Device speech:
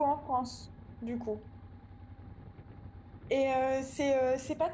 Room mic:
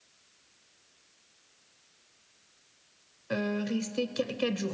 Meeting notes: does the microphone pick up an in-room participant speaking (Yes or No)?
Yes